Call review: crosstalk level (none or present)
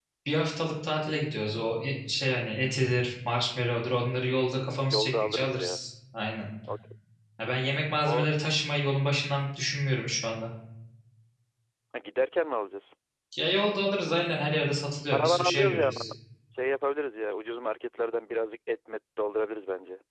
present